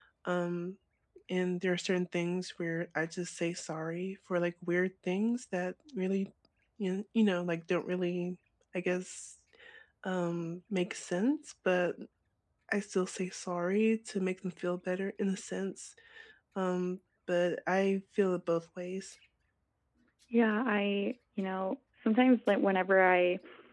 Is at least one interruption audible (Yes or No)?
No